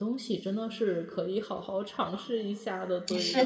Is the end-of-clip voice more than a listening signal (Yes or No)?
Yes